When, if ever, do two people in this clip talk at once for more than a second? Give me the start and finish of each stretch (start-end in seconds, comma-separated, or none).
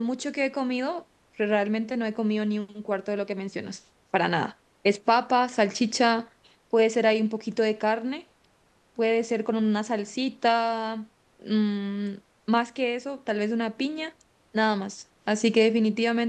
none